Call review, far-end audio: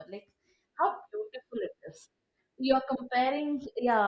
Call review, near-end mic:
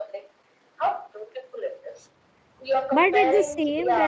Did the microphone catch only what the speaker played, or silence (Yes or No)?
No